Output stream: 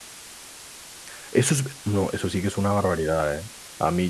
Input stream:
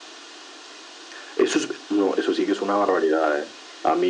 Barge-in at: none

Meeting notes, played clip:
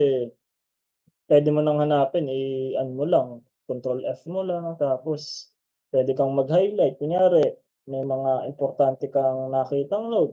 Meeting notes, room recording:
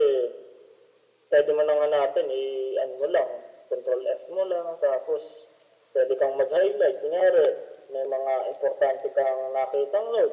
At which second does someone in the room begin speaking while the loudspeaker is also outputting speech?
none

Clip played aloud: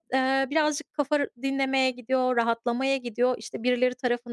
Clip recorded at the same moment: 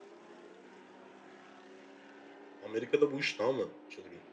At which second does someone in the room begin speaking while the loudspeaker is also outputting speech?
2.6 s

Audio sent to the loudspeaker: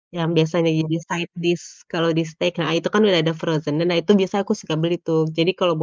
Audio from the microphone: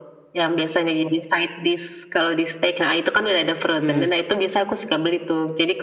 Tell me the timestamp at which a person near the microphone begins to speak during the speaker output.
3.6 s

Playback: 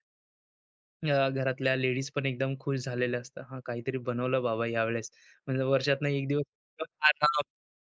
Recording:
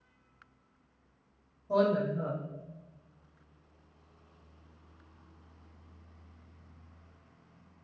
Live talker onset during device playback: 1.7 s

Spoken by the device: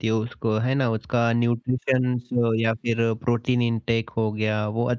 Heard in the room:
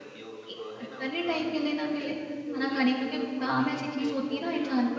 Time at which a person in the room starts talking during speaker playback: 0.5 s

